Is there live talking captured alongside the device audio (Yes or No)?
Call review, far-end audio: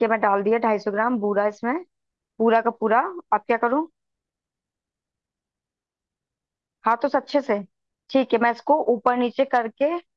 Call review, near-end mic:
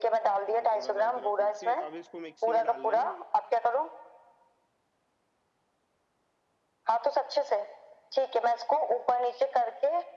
Yes